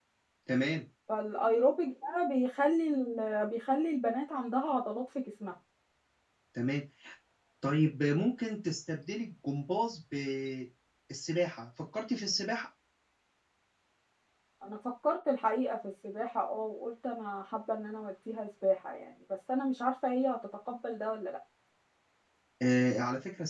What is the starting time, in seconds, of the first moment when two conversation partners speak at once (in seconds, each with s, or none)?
none